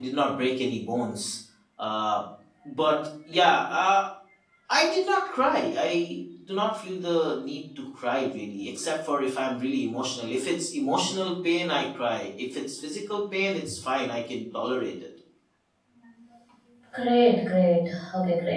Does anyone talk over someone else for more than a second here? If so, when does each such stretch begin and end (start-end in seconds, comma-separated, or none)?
none